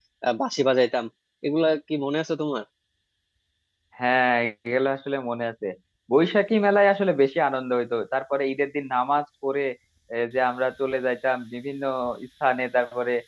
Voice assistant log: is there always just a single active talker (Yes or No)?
Yes